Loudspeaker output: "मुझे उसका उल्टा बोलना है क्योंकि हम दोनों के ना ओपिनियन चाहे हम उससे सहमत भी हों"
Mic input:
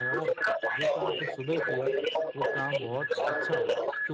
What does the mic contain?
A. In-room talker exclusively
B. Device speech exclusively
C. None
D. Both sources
D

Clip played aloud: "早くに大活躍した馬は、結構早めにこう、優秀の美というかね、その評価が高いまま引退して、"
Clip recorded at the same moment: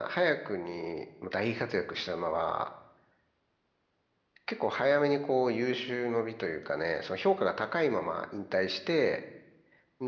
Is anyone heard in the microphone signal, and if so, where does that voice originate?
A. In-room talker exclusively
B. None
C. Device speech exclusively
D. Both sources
C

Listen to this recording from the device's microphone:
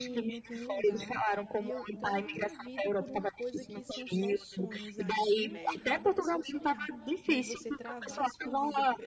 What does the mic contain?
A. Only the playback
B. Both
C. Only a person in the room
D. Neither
B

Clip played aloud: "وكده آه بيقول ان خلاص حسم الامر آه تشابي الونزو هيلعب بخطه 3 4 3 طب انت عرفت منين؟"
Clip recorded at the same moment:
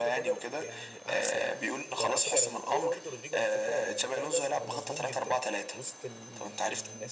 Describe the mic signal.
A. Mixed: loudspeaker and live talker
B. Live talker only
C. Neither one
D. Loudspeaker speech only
A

